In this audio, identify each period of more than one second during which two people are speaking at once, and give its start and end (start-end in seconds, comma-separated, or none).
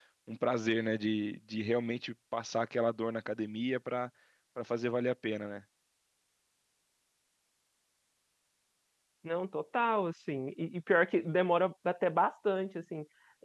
none